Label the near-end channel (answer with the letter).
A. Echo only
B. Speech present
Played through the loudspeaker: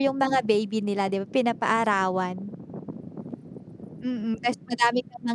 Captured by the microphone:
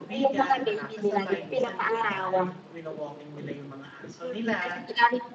B